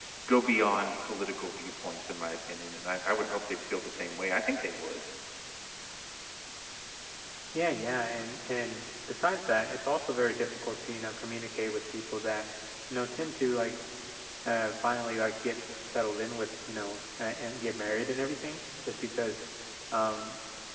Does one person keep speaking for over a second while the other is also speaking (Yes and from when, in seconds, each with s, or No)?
No